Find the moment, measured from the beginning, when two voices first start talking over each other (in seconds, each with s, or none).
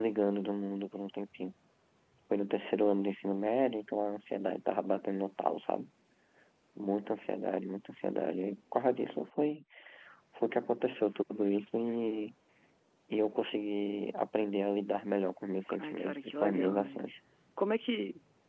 15.7 s